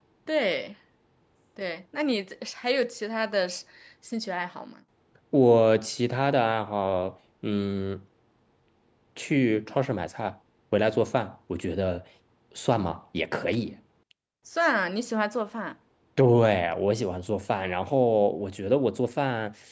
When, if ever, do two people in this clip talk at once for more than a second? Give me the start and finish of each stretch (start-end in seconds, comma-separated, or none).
none